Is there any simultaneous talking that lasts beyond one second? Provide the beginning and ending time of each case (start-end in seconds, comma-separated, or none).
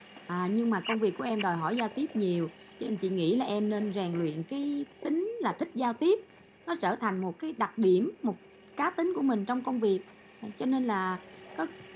none